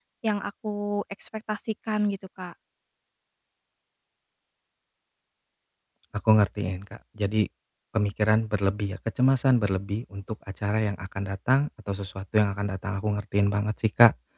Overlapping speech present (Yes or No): No